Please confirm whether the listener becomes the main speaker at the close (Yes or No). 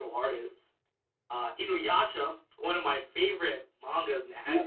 Yes